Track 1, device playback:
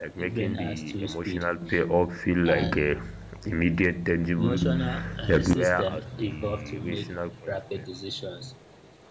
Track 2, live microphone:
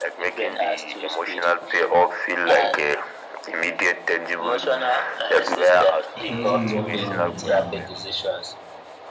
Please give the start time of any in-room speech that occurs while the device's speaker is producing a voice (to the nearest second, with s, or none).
6 s